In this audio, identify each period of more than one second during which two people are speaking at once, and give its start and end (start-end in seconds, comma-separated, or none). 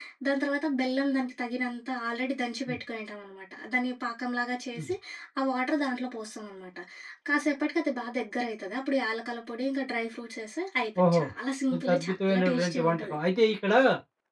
11.8-13.2